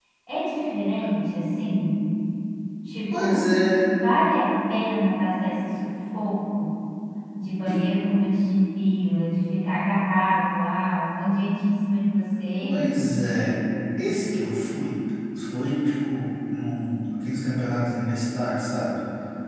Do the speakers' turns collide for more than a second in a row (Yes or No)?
No